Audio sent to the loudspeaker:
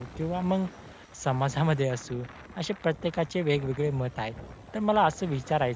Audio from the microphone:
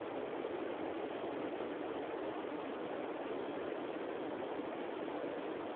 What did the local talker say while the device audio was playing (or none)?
none